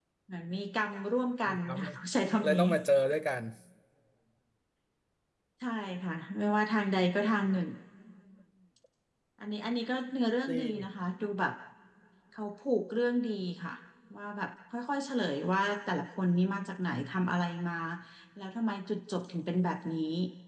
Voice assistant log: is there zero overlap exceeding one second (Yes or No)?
Yes